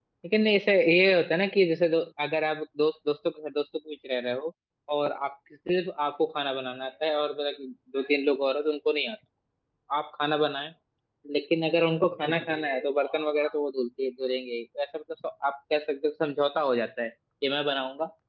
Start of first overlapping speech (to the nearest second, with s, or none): none